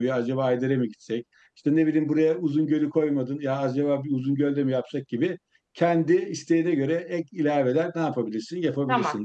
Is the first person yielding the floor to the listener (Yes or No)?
Yes